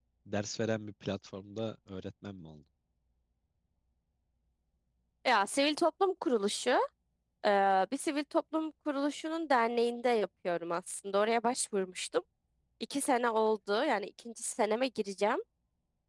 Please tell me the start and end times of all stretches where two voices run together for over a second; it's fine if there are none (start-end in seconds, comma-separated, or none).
none